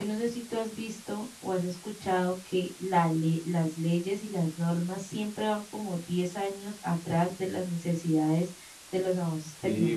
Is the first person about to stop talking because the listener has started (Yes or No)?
Yes